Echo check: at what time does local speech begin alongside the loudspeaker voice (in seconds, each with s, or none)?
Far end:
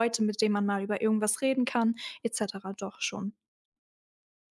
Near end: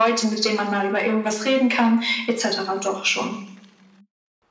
none